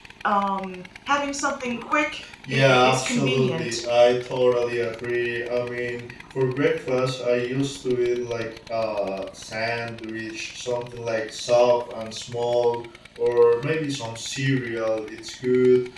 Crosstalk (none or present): present